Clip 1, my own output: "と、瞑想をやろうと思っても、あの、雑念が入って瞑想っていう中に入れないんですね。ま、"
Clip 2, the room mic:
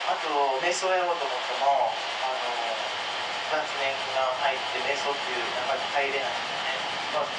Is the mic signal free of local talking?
Yes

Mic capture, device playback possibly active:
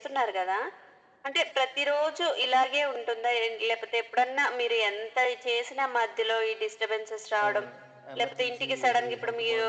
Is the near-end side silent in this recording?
No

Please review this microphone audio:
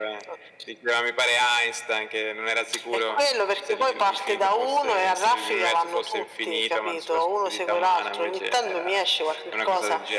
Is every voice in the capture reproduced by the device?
Yes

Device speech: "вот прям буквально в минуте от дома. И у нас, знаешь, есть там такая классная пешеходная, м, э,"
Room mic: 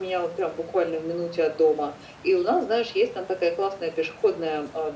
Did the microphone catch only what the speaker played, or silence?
Yes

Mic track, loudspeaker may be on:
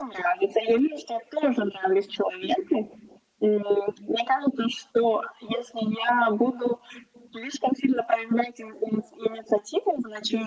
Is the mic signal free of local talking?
Yes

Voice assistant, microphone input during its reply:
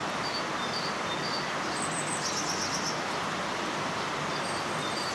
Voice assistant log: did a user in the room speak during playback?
No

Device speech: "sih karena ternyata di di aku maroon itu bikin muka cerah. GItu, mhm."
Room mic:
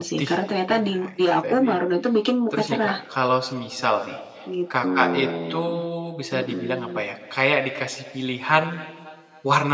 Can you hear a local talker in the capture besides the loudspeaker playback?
Yes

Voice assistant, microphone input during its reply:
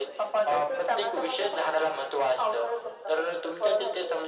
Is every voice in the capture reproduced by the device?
Yes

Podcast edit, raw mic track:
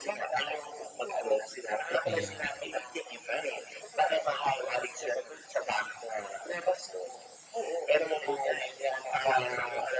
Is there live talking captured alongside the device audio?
Yes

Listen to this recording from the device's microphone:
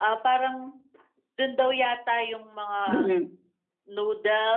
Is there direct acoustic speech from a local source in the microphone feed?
Yes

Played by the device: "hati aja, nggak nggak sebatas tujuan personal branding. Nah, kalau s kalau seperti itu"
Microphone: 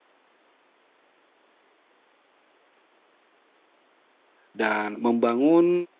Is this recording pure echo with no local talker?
No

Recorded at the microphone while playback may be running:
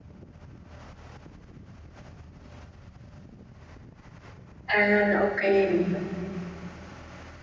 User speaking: Yes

